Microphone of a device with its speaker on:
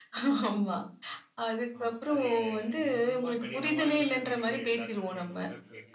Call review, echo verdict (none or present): present